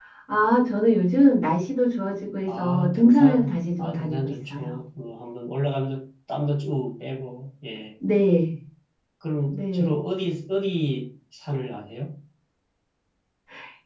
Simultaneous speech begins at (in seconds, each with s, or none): 2.5 s